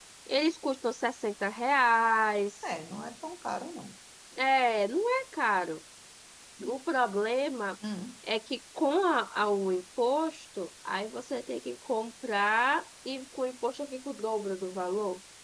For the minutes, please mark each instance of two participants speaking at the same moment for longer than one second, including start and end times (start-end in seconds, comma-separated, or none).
none